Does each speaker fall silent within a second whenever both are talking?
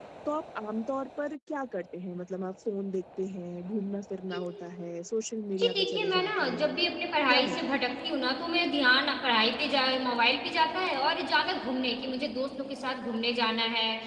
No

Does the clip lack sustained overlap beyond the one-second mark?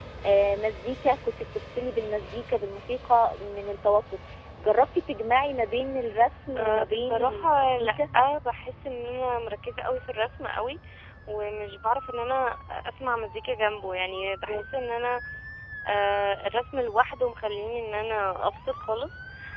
No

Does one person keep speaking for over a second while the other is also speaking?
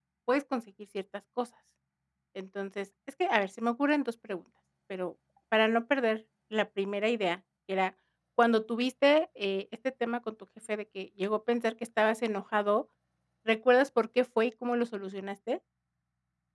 No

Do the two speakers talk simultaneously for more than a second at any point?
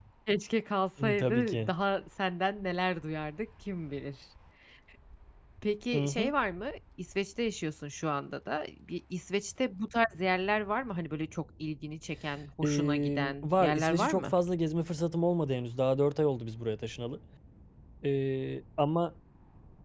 Yes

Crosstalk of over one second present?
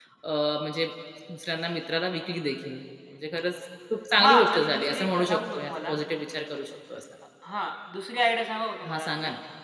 Yes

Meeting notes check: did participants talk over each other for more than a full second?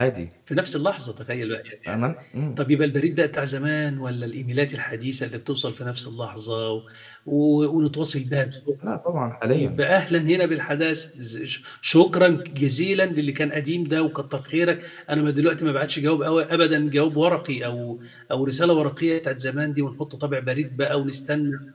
No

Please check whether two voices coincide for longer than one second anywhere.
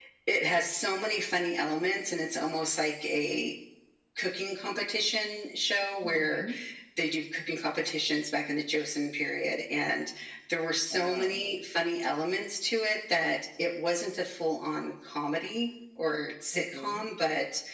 No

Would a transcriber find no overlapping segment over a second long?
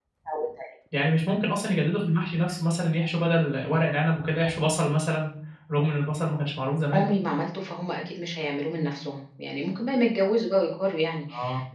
Yes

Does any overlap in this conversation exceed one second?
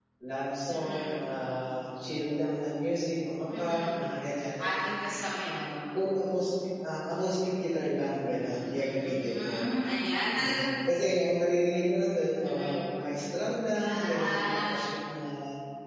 Yes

